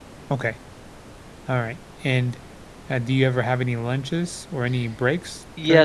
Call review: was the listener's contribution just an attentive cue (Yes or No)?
No